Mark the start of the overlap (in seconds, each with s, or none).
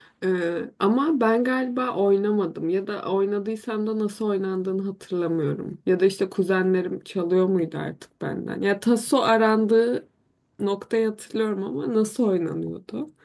none